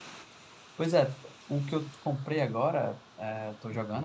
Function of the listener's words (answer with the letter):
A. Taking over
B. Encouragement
B